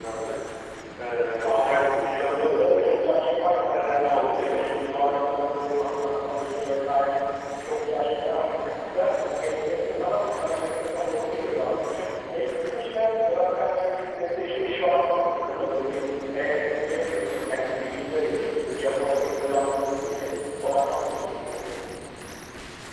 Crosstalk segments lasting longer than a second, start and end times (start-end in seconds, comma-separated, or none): 1.4-3.0, 3.7-5.0